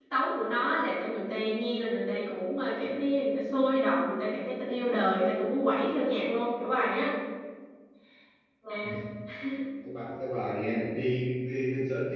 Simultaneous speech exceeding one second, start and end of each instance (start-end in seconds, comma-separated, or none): none